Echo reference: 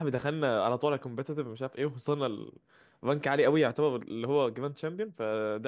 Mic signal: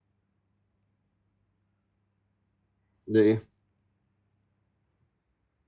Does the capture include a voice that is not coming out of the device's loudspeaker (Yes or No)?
Yes